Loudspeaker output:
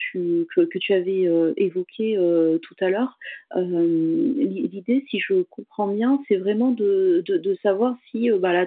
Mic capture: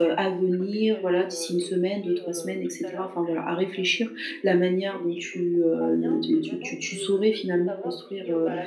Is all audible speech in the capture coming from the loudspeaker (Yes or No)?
No